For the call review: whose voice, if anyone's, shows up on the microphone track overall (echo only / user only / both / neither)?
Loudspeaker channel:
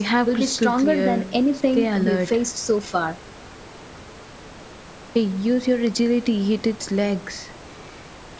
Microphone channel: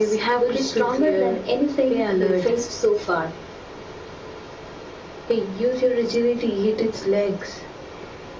echo only